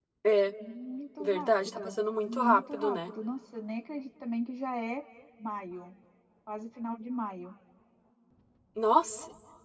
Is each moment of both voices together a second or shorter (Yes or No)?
No